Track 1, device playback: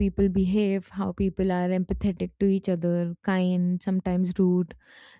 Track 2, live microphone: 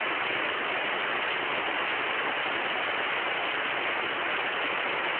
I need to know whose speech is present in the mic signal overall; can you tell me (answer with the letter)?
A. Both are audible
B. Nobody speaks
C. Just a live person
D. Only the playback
B